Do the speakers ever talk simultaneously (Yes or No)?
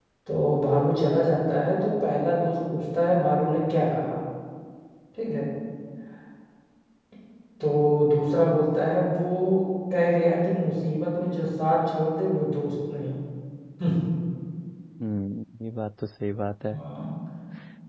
No